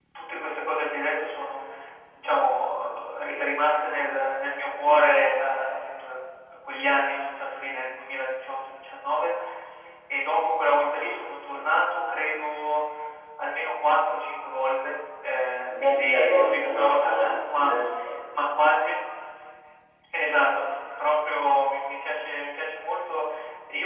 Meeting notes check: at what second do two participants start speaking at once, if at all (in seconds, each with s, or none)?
15.7 s